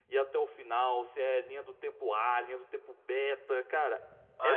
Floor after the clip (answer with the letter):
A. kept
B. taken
B